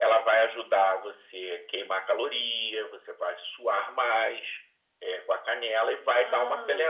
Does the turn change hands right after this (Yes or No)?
No